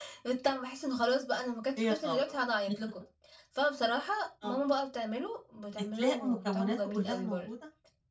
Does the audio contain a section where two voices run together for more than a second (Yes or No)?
Yes